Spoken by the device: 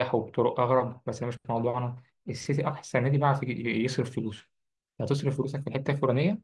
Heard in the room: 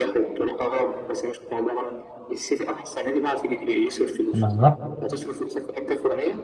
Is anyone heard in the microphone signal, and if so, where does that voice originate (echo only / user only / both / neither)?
both